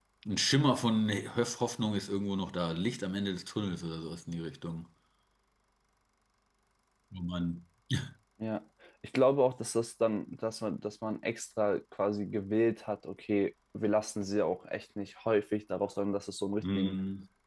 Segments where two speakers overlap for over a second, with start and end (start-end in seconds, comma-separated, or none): none